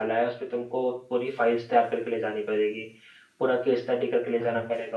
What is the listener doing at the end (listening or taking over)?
listening